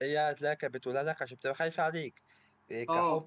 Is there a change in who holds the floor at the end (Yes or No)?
No